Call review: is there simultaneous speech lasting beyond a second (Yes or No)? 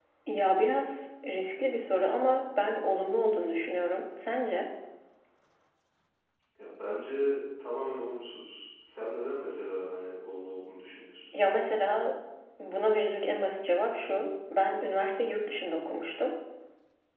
No